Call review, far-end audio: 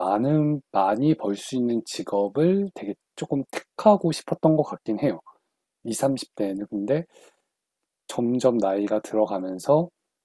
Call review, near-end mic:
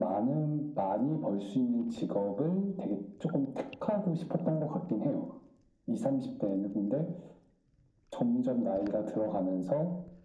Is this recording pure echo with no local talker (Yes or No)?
Yes